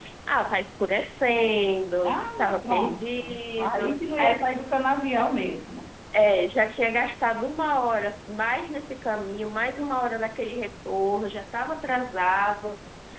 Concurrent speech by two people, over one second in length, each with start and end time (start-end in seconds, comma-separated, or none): 2.0-4.5